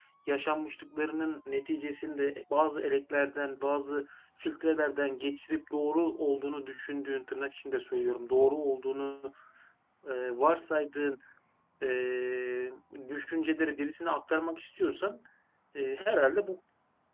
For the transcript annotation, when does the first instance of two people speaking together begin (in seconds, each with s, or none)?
none